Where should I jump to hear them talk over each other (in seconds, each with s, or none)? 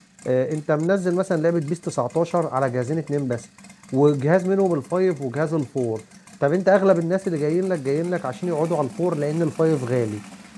none